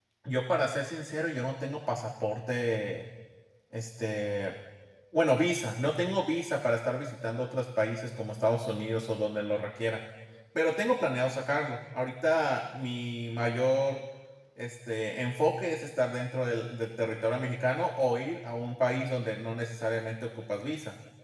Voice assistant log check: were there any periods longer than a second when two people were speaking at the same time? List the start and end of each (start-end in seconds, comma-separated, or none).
none